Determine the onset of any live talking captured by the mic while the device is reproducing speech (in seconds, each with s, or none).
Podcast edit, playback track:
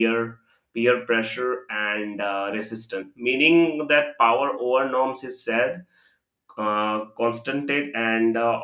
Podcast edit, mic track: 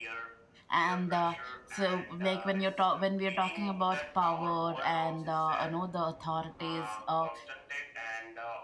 0.7 s